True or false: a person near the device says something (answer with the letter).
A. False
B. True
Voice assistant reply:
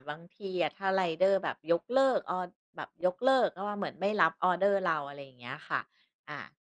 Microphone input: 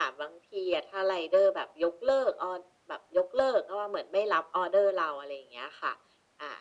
A